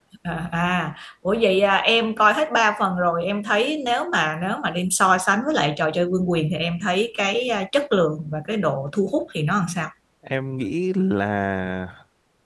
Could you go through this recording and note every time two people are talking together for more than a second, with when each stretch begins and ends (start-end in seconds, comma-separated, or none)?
none